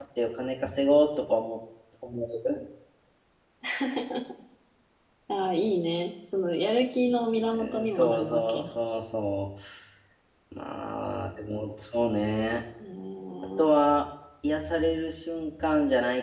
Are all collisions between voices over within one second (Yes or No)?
No